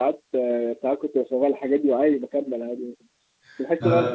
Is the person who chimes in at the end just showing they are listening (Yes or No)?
Yes